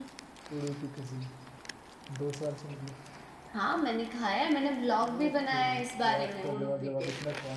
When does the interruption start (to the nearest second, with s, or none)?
5 s